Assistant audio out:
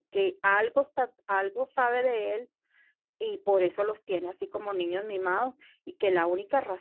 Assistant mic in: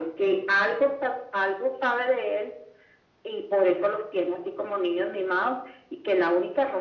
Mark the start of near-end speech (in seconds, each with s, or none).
none